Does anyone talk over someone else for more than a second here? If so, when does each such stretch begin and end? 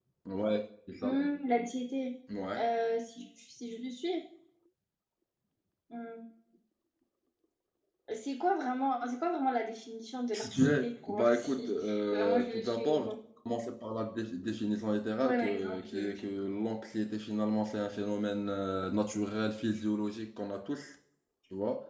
10.3-13.1, 15.2-16.4

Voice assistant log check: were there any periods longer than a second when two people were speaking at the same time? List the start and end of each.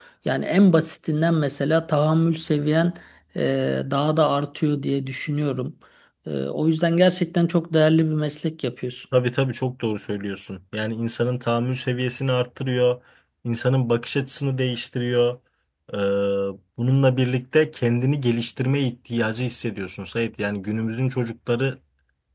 none

